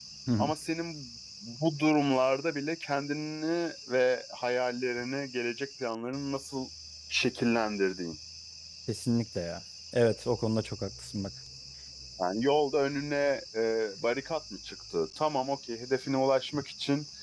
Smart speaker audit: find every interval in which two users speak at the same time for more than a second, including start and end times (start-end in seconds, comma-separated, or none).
none